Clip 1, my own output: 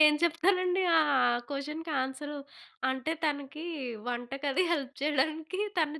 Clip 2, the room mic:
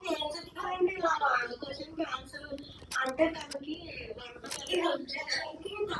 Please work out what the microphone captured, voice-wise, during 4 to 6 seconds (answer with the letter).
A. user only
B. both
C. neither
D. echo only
D